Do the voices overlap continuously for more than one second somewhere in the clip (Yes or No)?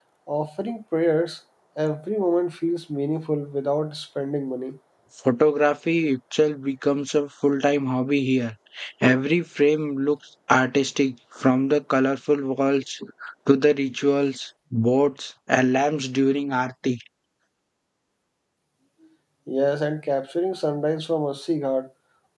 No